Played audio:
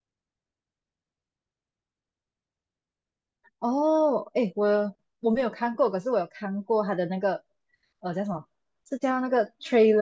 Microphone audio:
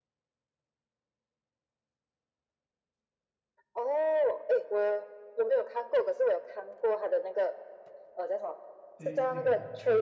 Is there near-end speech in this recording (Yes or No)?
Yes